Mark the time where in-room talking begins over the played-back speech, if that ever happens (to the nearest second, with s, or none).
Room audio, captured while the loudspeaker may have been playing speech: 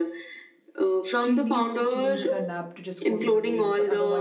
1 s